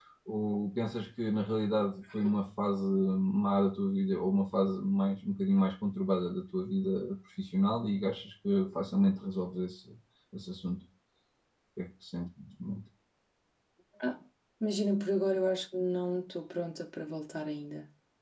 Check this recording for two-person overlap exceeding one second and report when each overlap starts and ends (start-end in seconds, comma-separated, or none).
none